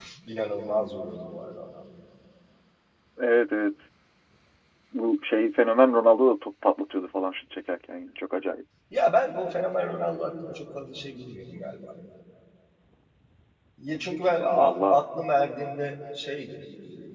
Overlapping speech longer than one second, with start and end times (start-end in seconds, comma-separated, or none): none